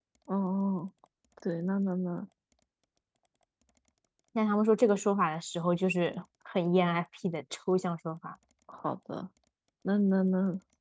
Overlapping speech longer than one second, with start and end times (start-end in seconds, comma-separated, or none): none